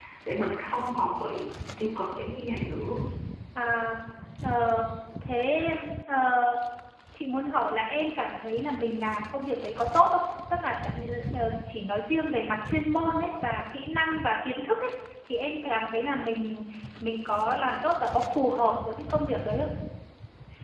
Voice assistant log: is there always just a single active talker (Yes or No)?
Yes